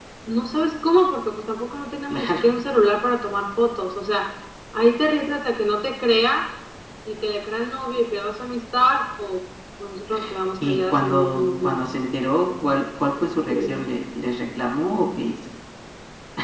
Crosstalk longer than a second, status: present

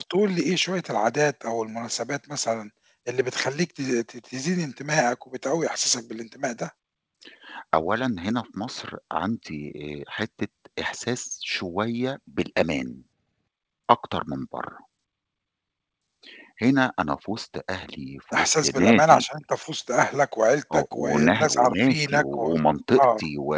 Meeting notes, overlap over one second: present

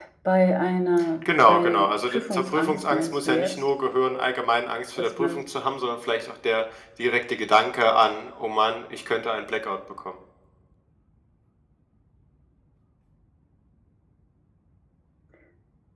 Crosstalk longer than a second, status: present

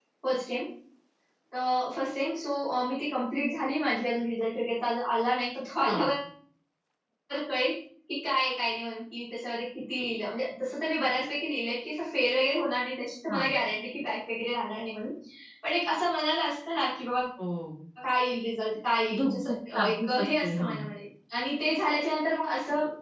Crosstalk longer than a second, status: present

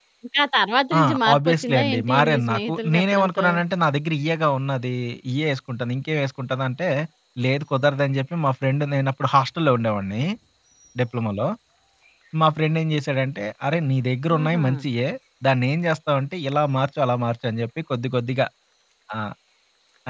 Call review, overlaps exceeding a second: present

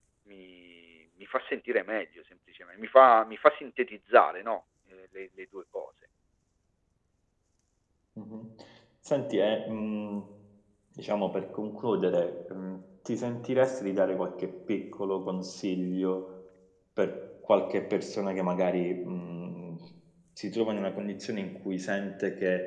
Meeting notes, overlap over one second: none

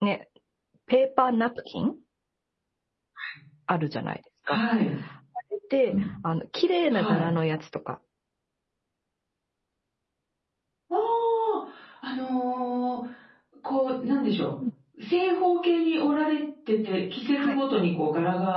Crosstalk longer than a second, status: none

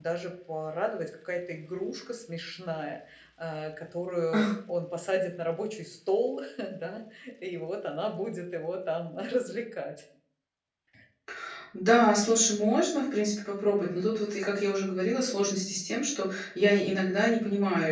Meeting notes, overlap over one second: none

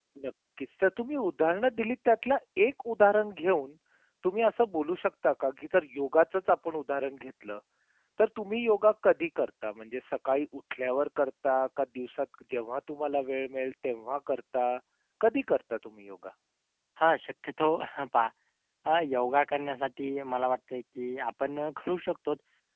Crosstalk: none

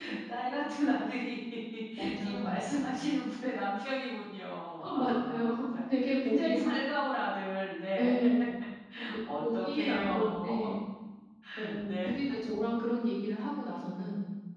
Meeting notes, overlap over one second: present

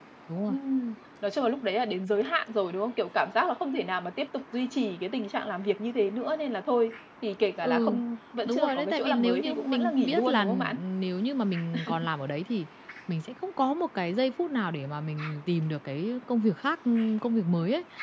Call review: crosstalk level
present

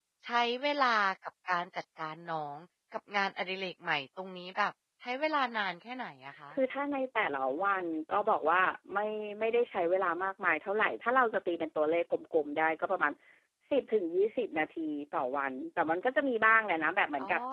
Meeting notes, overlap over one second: none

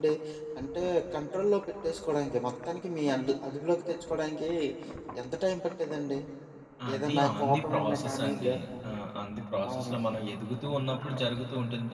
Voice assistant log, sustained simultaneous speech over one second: present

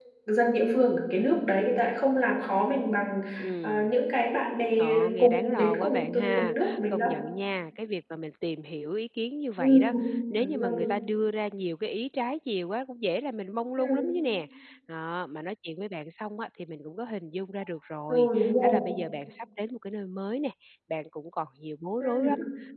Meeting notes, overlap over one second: present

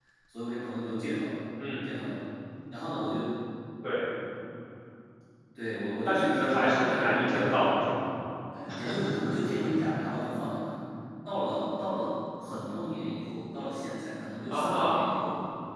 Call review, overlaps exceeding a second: present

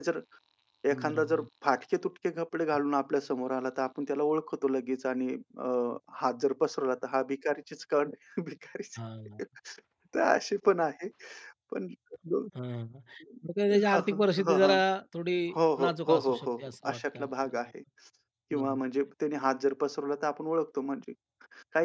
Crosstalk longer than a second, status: present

